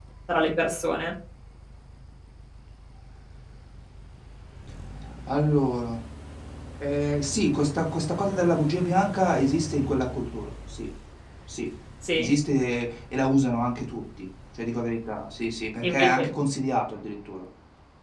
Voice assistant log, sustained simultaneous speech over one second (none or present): none